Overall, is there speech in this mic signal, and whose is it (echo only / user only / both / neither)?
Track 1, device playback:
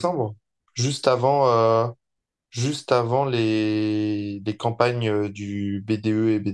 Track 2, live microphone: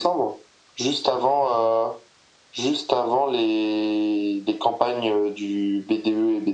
echo only